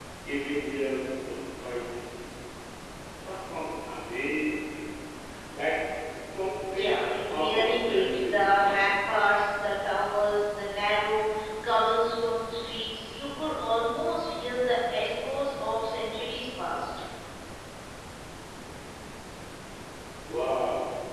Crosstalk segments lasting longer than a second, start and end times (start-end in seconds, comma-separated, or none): 6.7-8.5